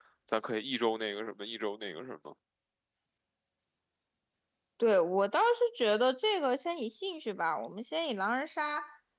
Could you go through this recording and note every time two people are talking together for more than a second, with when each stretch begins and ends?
none

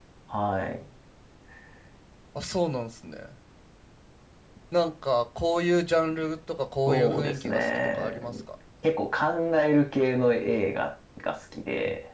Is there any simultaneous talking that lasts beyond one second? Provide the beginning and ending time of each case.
6.9-8.2

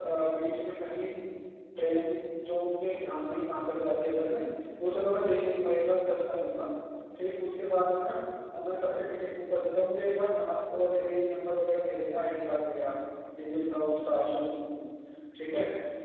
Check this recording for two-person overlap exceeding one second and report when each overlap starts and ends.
none

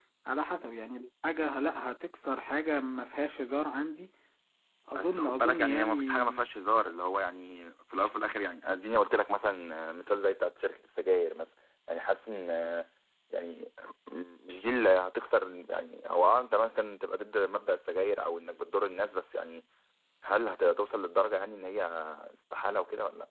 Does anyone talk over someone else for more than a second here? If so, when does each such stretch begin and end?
4.9-6.4

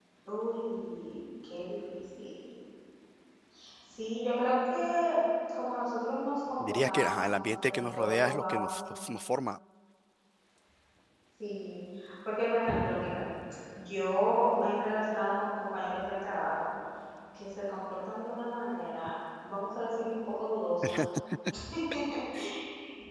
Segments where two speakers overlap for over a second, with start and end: 6.6-8.8

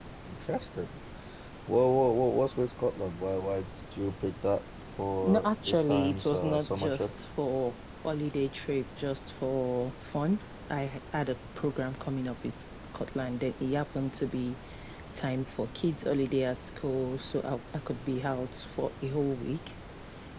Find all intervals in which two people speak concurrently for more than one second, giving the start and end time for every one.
5.2-7.0

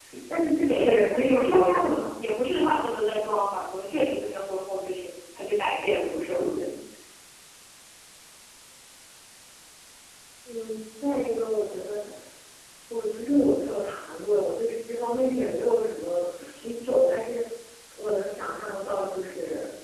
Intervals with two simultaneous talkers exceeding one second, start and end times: 0.7-2.2

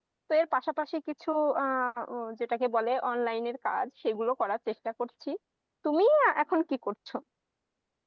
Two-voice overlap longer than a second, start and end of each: none

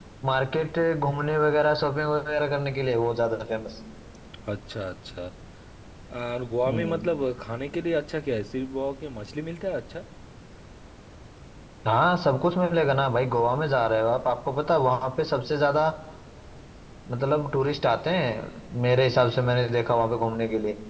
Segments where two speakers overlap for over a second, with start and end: none

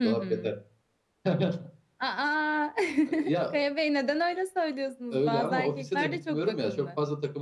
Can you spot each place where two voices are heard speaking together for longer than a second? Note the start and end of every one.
5.1-6.8

